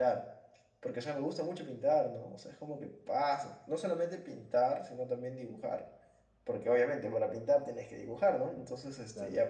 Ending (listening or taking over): listening